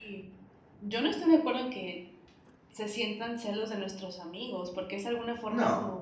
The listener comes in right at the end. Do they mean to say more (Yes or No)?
No